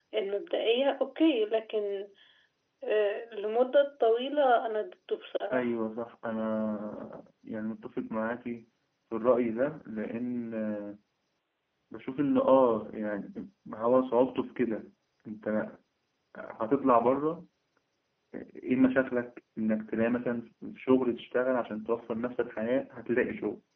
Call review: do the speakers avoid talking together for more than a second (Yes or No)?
Yes